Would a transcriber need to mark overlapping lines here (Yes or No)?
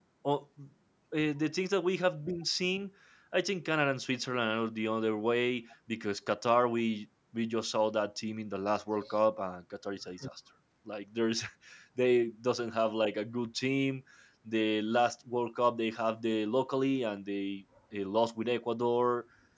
No